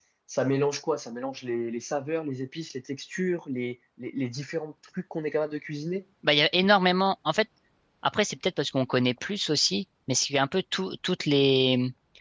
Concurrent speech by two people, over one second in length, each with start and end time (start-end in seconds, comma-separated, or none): none